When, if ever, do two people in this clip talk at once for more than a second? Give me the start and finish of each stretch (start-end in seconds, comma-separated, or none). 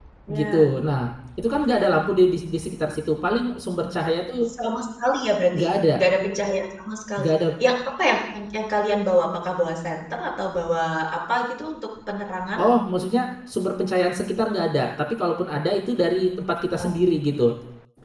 none